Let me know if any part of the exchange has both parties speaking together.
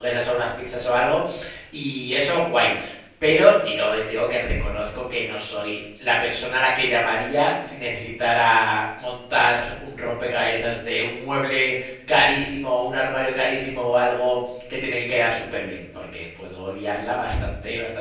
No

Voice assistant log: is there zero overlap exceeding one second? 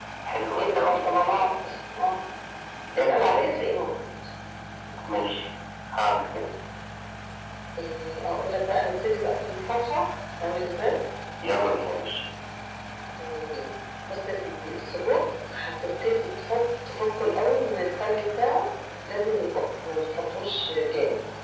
No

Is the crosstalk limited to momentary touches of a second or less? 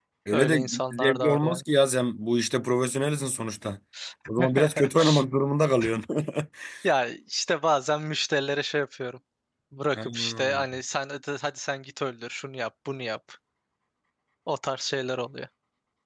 No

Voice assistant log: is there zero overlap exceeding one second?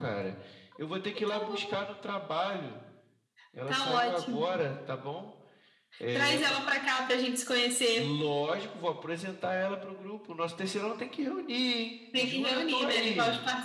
No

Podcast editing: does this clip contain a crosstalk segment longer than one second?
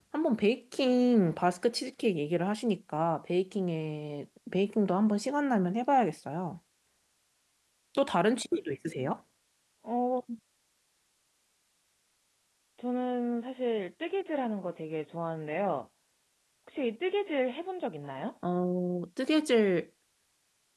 No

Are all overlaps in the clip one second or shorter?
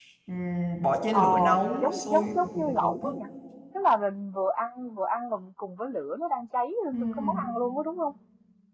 No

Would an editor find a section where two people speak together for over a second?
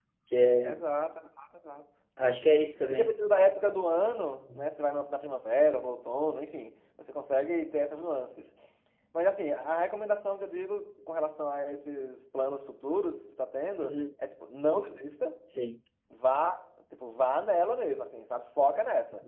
No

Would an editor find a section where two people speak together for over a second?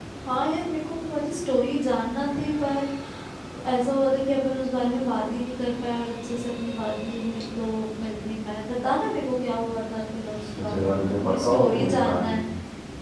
Yes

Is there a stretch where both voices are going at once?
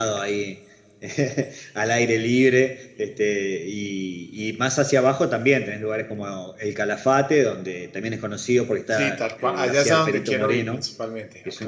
Yes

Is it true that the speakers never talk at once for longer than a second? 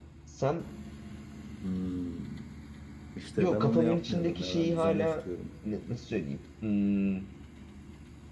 No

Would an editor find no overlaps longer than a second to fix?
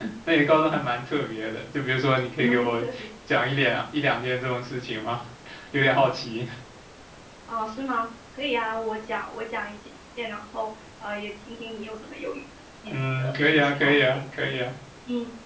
No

